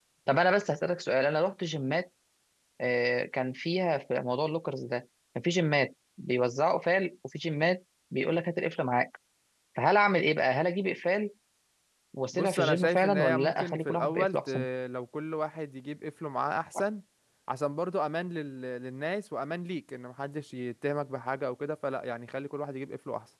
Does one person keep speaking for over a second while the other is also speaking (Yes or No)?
Yes